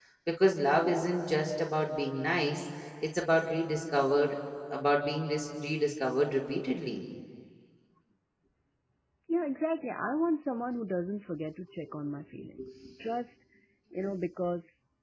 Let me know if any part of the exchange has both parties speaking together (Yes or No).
No